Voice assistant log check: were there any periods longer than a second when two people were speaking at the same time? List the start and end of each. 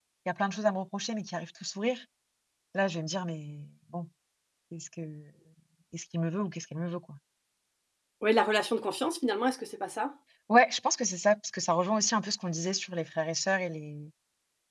none

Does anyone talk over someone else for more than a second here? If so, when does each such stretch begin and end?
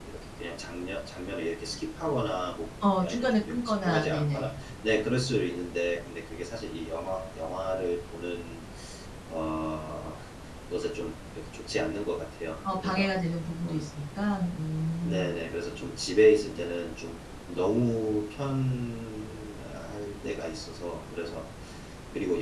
3.0-4.5

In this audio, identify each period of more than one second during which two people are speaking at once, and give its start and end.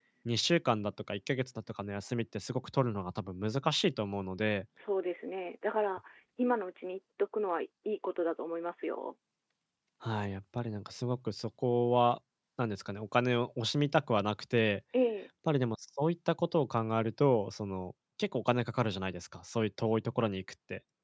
none

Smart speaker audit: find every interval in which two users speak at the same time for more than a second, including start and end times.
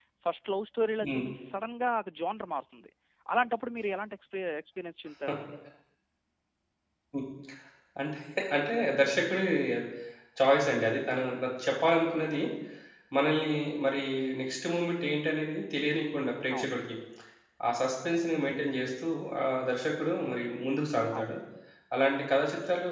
none

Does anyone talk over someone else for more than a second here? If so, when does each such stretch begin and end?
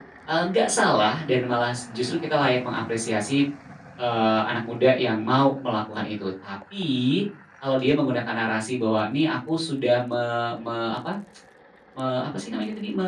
none

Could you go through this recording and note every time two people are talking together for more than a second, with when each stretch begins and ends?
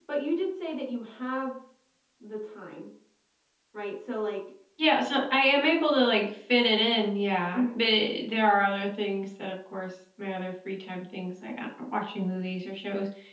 none

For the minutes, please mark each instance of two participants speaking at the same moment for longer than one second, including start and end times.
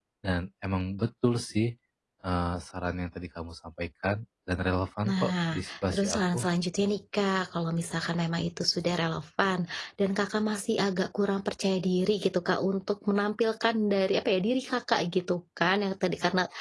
5.1-6.4

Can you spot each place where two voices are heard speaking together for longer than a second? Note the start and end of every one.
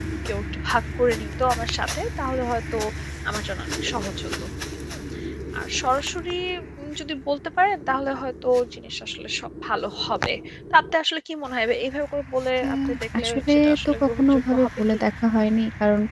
13.2-15.0

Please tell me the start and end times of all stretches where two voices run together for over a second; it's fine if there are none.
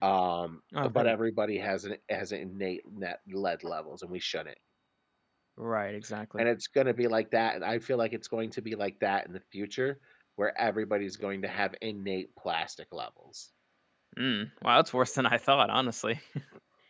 none

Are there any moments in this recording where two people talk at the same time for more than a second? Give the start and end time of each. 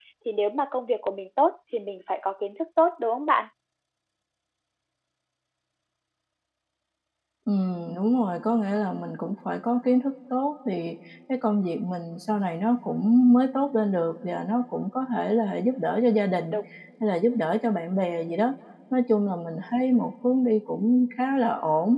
none

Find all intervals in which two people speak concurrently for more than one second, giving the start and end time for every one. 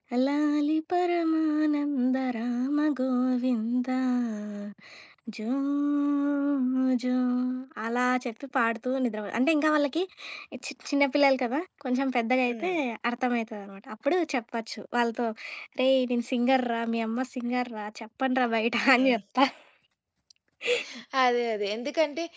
none

